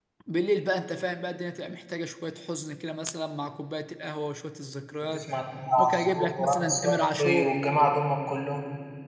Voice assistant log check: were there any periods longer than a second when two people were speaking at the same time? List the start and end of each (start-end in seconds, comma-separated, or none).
5.8-7.5